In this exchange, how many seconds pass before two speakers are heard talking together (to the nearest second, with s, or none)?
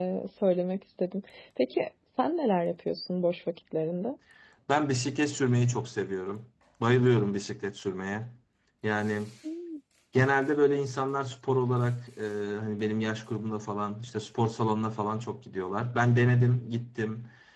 none